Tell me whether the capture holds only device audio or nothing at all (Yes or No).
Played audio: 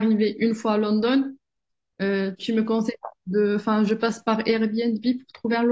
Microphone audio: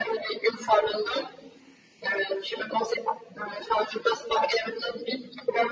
Yes